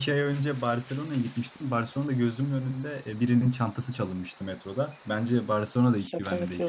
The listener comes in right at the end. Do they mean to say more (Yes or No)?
Yes